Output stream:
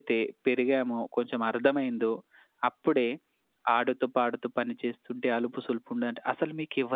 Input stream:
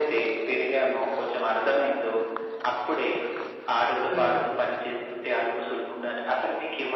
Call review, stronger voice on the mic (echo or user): echo